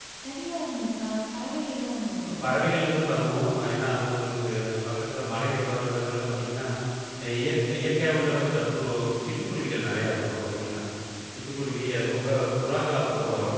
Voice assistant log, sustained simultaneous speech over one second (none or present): none